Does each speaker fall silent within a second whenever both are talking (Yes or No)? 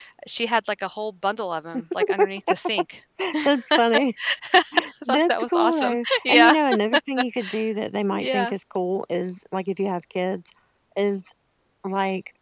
No